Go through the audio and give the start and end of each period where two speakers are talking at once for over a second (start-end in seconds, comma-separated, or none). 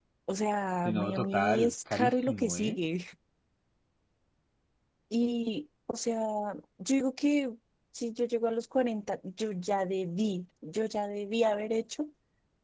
0.8-2.8